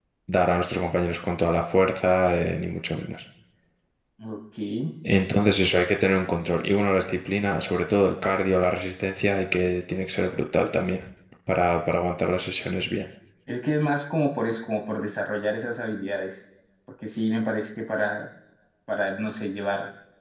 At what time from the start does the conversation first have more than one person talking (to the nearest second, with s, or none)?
none